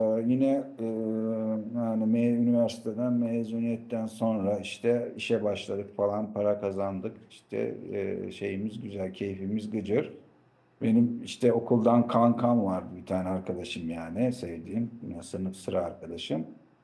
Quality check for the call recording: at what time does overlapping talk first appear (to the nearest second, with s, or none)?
none